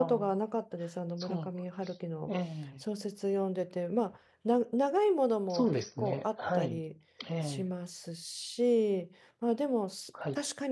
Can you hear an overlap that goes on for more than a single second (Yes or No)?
Yes